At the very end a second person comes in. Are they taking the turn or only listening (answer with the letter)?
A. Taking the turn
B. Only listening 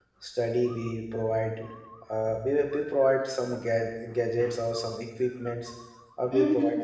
B